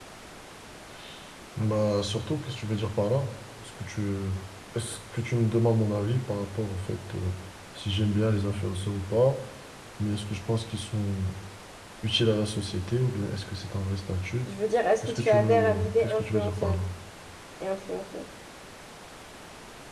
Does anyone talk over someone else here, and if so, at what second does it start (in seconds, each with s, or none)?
15.0 s